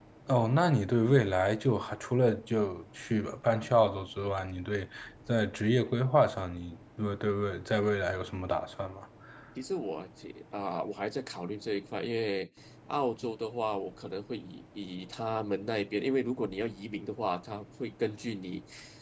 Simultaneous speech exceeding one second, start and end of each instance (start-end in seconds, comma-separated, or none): none